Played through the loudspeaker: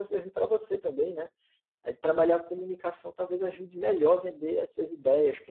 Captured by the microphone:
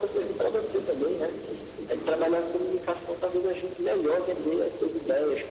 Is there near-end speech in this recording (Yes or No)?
No